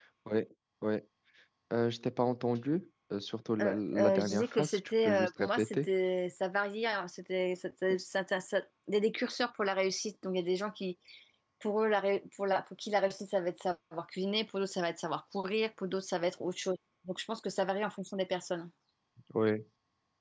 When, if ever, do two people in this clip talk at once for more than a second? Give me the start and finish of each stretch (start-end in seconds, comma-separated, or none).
3.6-5.9